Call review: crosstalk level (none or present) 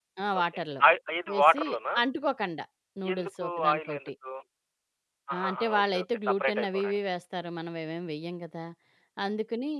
present